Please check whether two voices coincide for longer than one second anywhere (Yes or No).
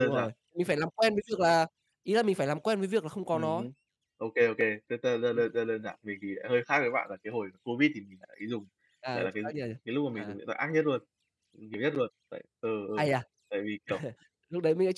No